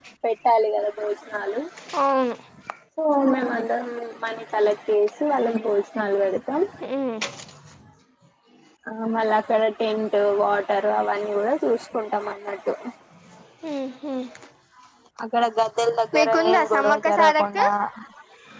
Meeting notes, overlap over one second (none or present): present